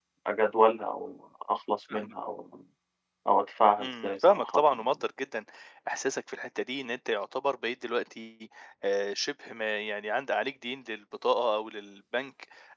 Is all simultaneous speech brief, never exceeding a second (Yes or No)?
No